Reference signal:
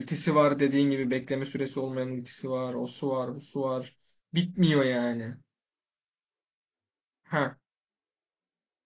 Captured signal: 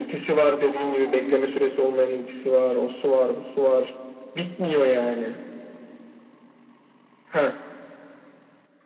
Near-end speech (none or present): none